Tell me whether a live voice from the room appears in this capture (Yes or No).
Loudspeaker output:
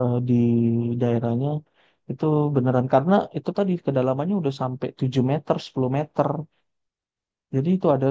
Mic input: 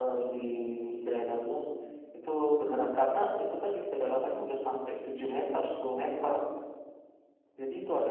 No